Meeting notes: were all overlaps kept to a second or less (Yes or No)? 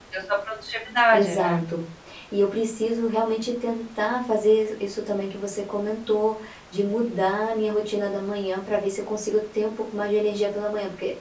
Yes